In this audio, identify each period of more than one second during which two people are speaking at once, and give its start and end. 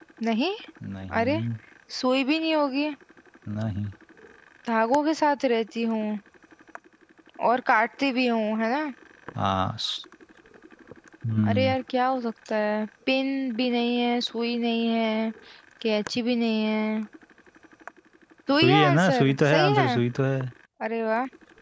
18.6-19.9

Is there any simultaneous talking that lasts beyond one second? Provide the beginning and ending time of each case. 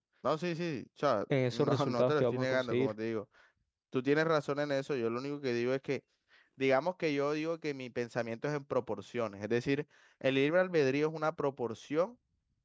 1.5-2.9

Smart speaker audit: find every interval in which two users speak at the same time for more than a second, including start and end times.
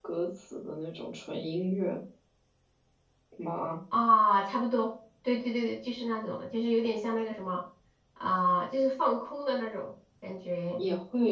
none

